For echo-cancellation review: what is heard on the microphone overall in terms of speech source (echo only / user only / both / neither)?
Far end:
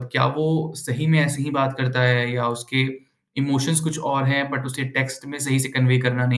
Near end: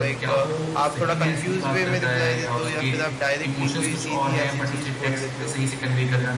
both